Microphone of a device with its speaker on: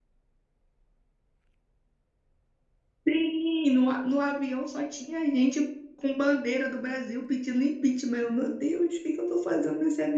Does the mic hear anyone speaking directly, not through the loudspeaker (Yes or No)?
Yes